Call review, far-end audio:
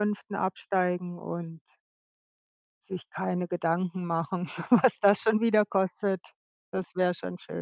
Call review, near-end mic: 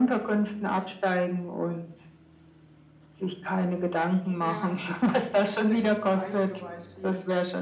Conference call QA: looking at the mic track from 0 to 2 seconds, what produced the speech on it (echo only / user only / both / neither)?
echo only